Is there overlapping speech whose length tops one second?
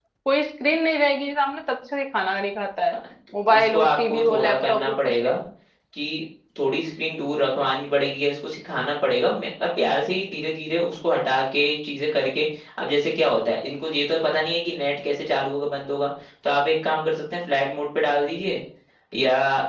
Yes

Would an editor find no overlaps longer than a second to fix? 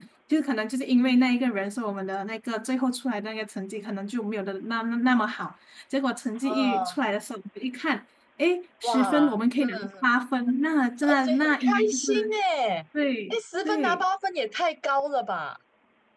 No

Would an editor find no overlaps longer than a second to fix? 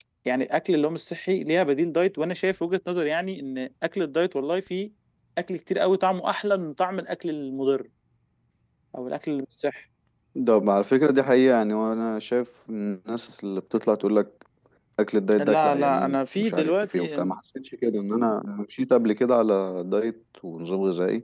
No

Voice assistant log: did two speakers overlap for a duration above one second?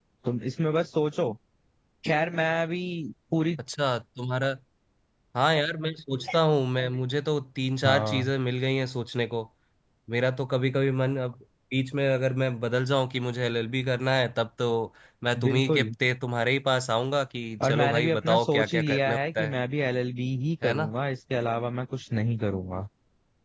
Yes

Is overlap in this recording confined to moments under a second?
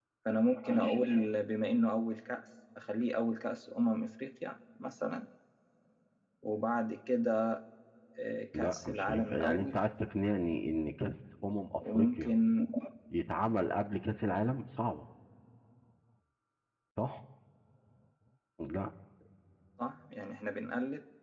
No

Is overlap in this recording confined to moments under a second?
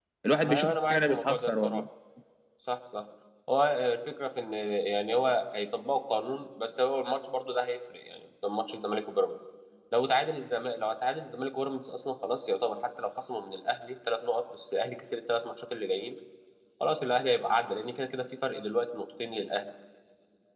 No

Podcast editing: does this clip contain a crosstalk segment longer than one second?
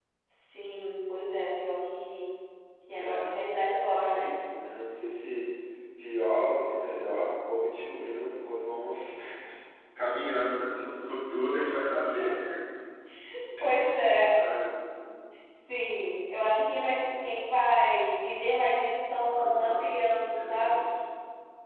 No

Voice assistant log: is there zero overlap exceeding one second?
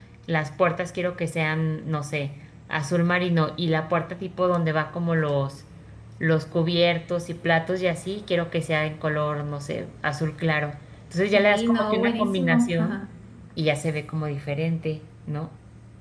No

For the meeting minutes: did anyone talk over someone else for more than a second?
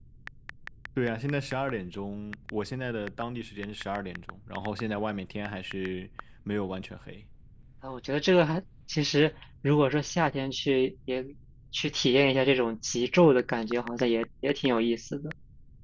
No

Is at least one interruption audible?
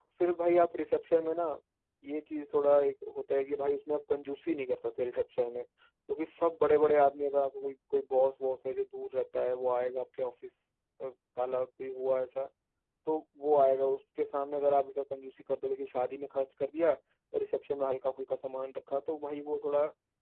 No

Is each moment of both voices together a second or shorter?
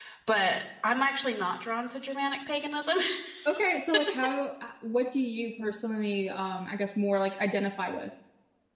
Yes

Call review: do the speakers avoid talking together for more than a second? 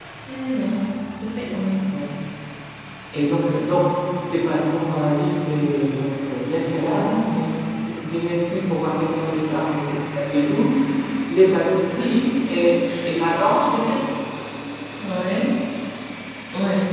Yes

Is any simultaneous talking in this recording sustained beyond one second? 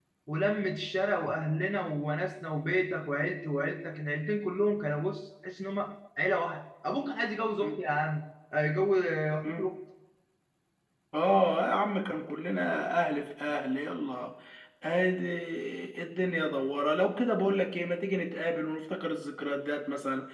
No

